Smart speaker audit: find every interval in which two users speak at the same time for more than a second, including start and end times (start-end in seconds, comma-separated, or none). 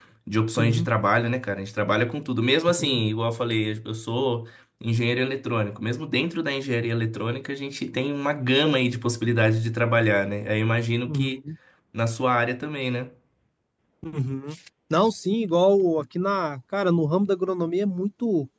none